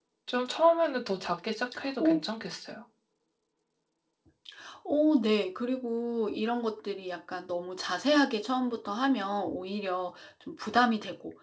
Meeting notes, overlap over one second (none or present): none